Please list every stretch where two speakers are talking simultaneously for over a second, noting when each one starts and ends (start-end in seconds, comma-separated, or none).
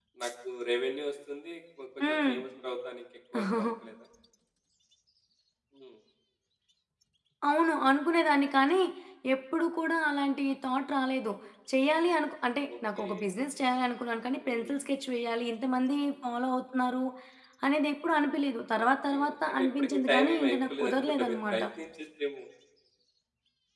18.8-21.6